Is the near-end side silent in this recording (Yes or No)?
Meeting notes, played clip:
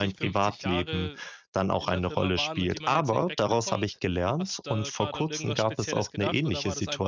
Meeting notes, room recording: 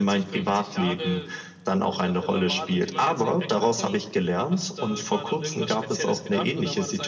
Yes